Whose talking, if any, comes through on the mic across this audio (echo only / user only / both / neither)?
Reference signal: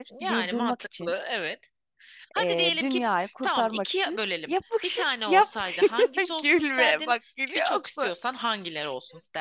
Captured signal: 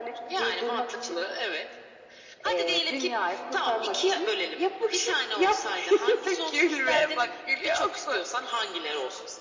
echo only